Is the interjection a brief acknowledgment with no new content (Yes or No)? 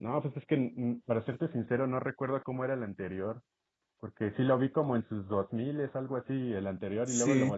Yes